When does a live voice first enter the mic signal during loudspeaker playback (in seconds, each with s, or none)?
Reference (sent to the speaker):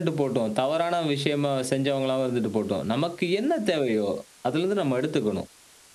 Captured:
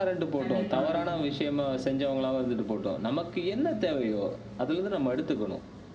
0.4 s